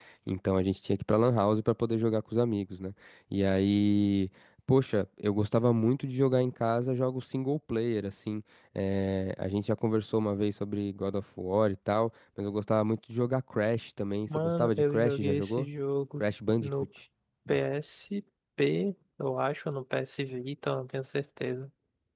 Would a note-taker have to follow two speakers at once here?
Yes, from 14.3 s

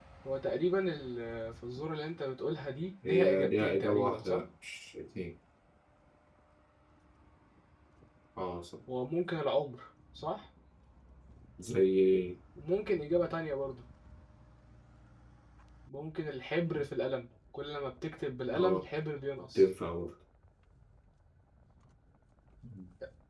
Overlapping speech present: Yes, from 3.0 s

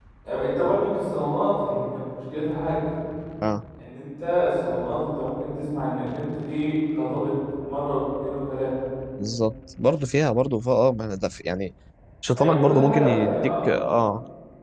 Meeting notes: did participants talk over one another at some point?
Yes, from 12.3 s

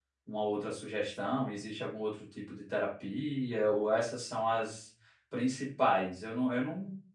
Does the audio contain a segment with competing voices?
No

